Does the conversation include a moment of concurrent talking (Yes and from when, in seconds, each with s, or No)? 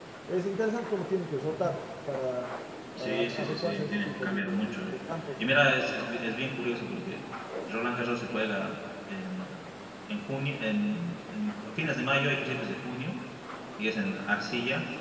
Yes, from 3.0 s